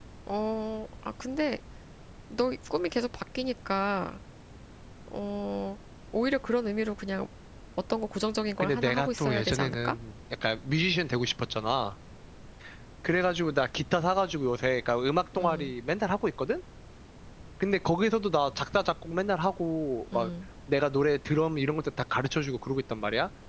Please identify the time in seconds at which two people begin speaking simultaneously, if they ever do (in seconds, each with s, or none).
8.6 s